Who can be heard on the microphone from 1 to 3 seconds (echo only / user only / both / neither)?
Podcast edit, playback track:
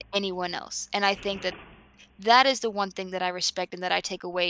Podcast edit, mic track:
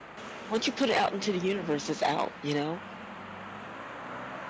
user only